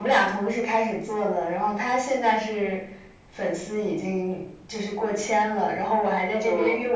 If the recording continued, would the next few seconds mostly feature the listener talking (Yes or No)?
No